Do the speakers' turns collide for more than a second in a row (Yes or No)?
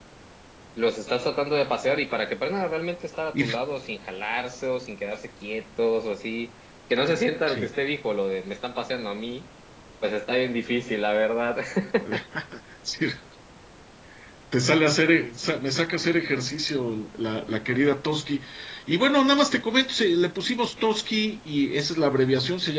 No